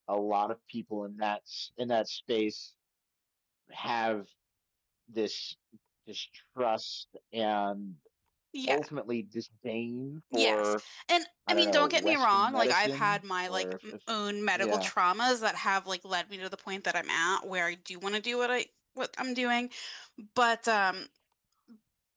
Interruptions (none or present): present